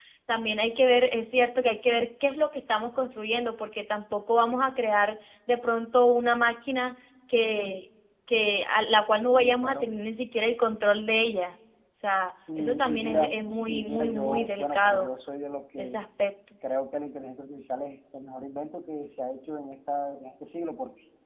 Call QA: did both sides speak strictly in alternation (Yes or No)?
No